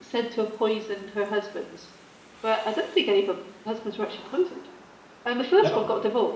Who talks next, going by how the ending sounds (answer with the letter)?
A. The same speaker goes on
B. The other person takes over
A